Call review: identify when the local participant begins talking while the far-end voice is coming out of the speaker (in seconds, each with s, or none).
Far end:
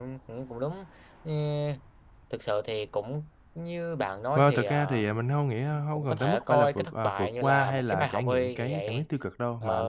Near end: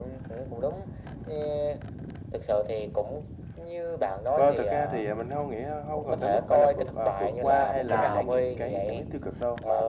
7.9 s